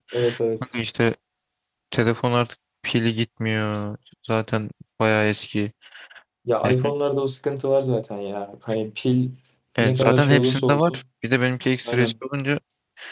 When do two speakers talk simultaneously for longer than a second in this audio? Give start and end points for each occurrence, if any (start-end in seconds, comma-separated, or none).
9.8-11.0